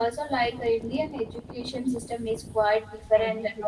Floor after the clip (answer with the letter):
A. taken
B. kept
B